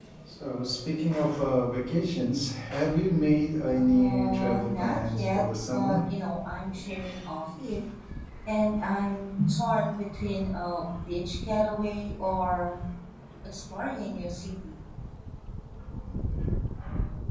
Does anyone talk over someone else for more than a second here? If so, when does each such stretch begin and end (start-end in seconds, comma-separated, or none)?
3.7-6.0